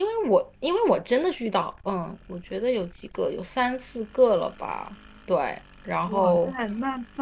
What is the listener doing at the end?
taking over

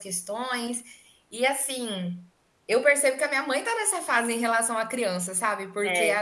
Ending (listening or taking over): listening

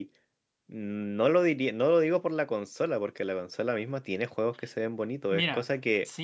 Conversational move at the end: taking over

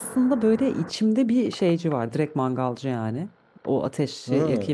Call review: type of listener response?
listening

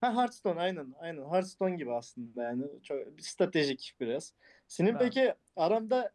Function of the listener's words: listening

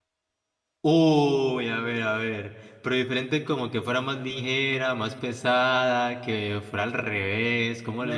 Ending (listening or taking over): taking over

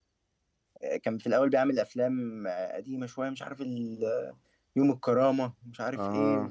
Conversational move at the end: listening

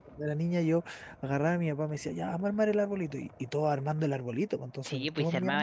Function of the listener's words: taking over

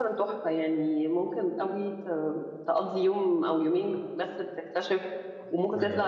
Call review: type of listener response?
listening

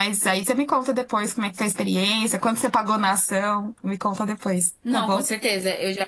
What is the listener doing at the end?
taking over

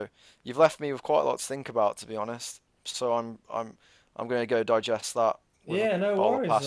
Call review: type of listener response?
taking over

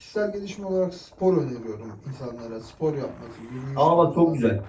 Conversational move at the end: taking over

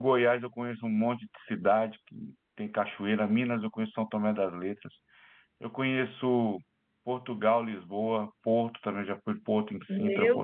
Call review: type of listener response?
taking over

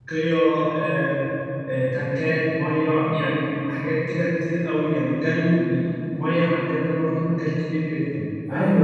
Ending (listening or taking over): taking over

